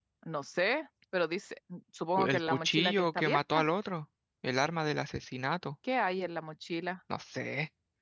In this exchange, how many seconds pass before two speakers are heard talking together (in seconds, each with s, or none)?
2.2 s